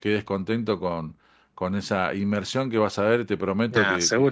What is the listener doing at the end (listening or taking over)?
taking over